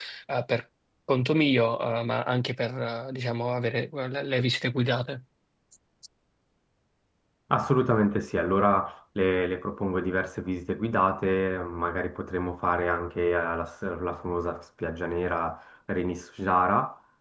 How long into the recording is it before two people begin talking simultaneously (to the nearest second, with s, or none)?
none